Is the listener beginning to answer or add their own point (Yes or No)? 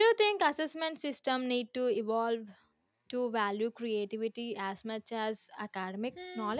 Yes